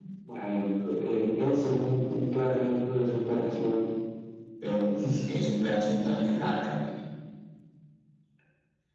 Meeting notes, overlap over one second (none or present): none